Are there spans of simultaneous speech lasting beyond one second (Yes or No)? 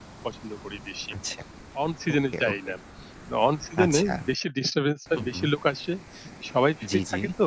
No